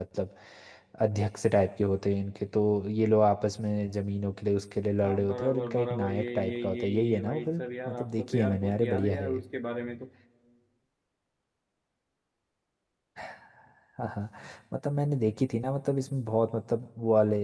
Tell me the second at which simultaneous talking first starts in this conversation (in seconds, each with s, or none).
5.0 s